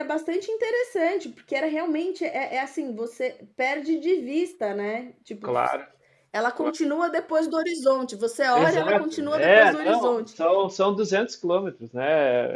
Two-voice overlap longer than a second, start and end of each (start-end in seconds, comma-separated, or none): 8.5-10.2